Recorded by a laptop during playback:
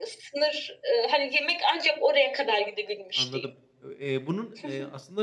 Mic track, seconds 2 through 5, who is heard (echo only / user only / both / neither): both